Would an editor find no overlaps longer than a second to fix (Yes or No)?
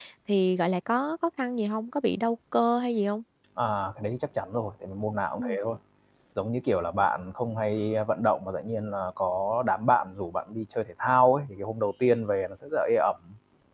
Yes